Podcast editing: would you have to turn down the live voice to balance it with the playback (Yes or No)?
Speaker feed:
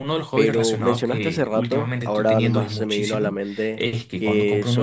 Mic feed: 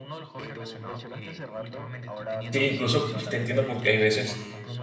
Yes